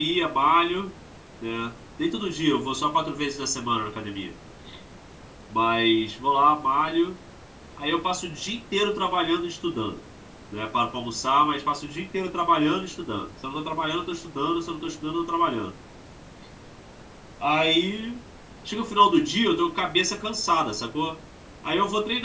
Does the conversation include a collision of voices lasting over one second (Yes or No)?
No